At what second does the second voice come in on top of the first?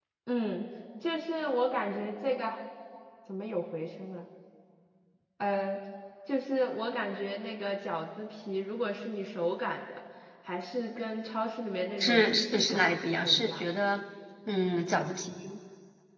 12.0 s

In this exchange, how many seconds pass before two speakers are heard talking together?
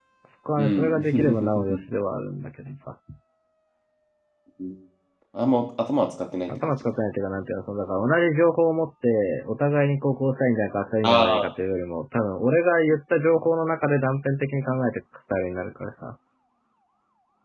0.6 s

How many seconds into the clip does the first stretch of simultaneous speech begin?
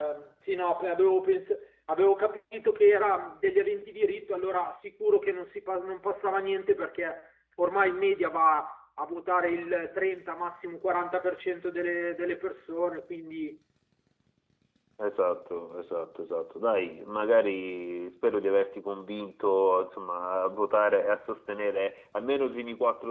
none

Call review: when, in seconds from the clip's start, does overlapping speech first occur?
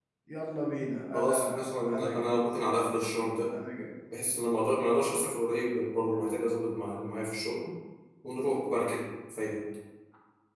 1.1 s

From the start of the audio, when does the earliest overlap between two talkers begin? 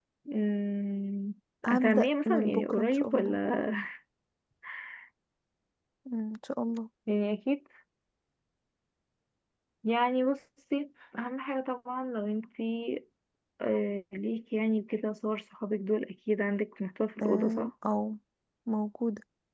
1.7 s

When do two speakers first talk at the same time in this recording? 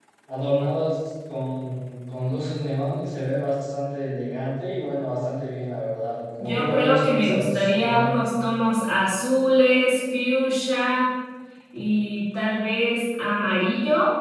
6.4 s

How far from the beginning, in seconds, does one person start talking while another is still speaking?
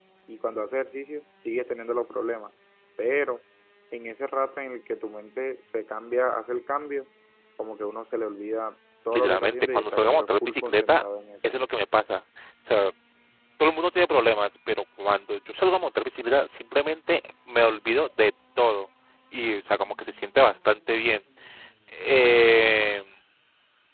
9.1 s

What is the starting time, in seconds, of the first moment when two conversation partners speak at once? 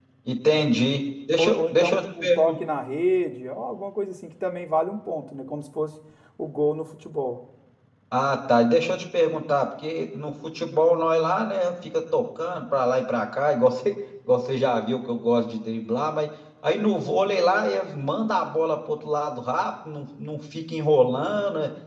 1.4 s

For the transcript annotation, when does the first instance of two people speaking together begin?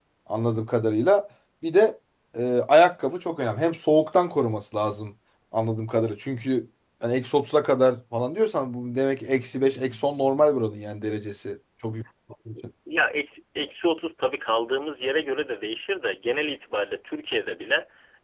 none

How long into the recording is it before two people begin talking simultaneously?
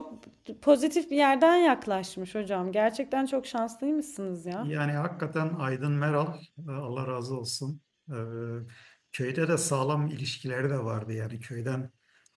none

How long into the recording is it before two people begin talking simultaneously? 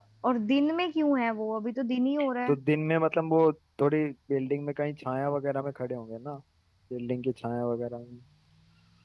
none

